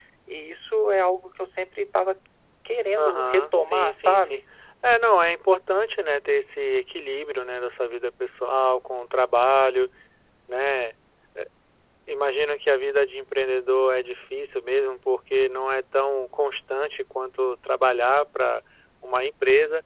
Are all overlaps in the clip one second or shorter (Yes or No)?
No